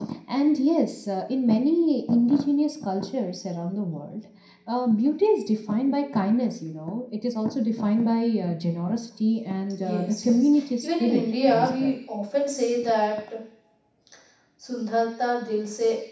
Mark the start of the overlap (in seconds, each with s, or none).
9.8 s